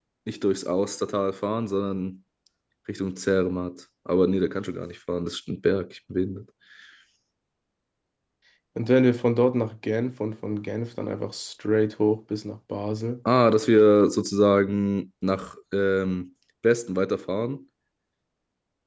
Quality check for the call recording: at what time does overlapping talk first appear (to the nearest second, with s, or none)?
none